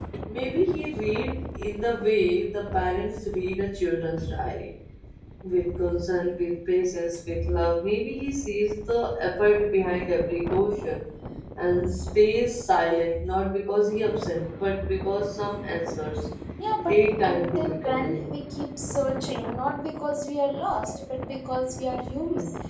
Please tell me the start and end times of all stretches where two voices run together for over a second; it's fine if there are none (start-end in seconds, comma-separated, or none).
16.9-18.3